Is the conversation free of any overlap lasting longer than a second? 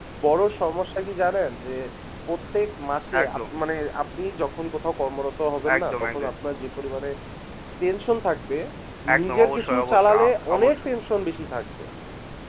No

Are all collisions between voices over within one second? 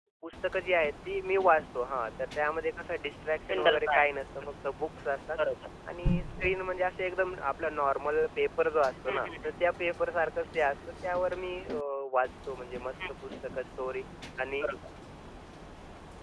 Yes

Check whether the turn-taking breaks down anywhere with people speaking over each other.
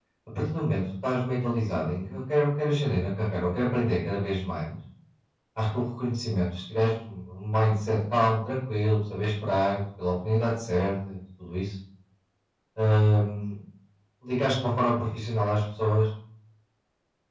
No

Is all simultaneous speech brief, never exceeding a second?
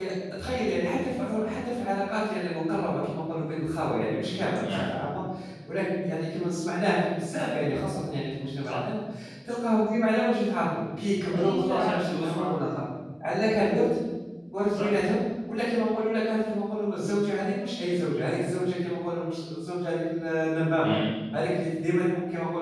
No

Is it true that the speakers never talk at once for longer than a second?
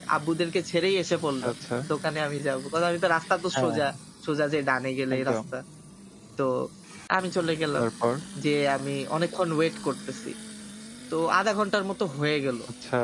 Yes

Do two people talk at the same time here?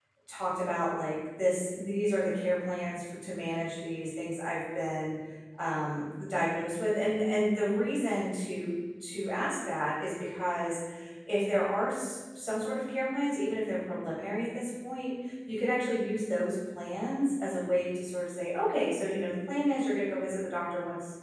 No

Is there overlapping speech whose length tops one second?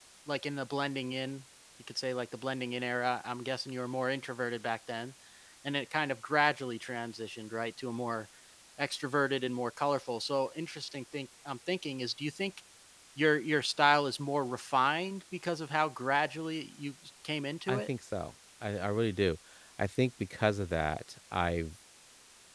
No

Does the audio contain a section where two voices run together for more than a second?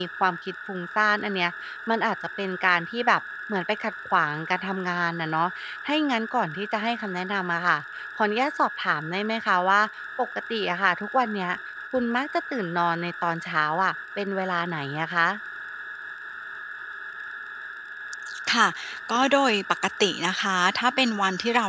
No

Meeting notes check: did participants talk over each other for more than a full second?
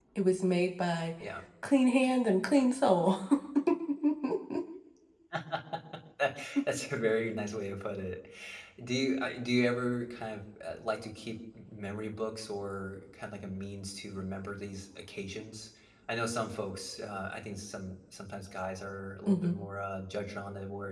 No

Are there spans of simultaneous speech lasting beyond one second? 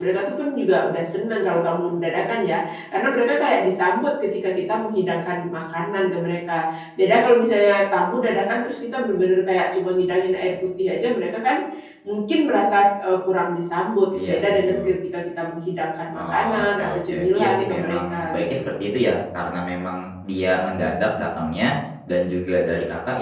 Yes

